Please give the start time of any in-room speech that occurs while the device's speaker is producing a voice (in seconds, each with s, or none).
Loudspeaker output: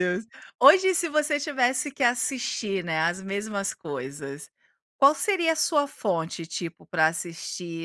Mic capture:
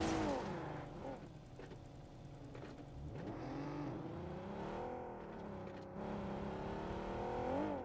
none